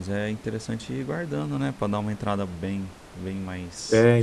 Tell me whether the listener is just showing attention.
No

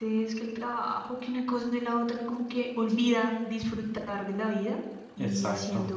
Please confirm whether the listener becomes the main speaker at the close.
No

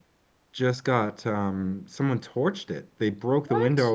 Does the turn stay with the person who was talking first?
Yes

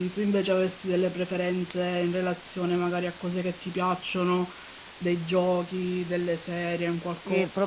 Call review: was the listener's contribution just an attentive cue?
No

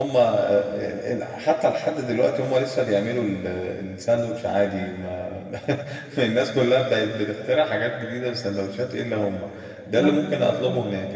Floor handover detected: No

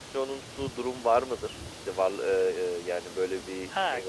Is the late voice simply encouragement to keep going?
No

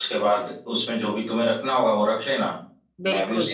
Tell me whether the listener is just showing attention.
Yes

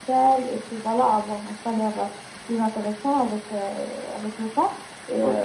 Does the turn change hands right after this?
No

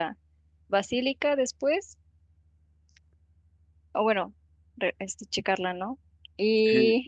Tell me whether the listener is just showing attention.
No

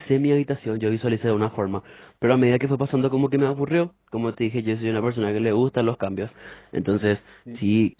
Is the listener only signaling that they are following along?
Yes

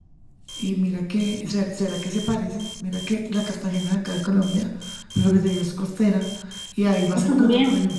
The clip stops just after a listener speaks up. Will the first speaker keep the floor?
Yes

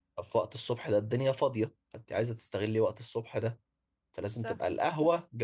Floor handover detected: No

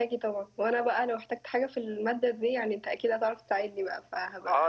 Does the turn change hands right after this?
Yes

